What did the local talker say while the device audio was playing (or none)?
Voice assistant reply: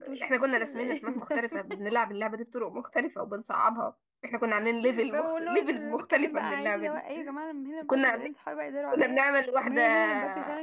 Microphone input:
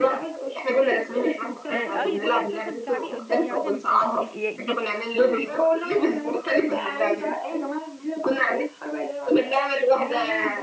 آه، اي دي اللي انت مثلا بتلعبي قدام يعني مثلا آه، ي- ي-